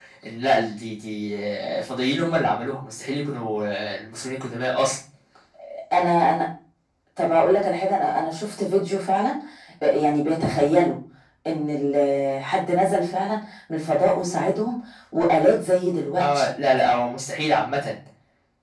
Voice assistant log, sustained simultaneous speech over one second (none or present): none